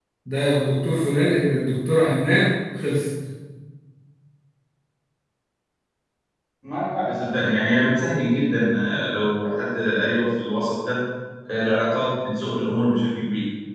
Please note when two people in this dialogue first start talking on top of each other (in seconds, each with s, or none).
none